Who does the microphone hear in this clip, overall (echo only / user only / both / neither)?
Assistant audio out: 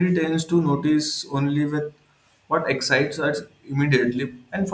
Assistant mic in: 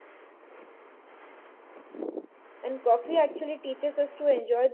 user only